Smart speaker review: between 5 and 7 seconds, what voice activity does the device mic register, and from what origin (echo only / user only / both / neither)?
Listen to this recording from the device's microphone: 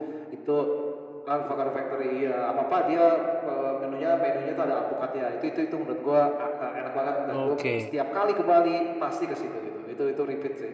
echo only